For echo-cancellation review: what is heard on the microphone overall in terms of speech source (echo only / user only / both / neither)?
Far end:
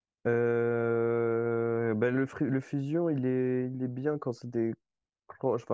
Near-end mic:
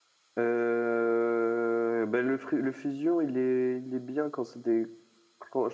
echo only